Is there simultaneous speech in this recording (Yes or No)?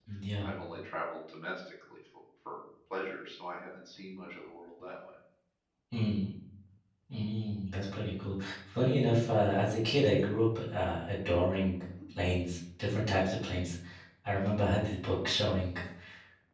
No